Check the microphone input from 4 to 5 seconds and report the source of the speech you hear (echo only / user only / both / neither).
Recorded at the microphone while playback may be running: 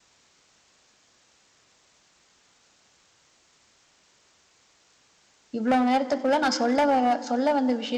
neither